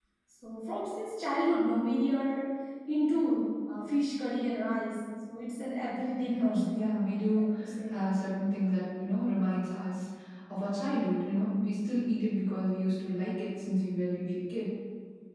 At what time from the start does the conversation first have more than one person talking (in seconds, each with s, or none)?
6.2 s